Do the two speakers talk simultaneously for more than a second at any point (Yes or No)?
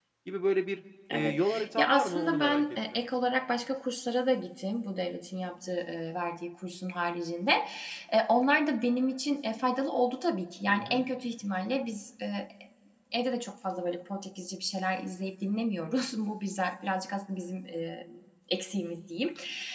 Yes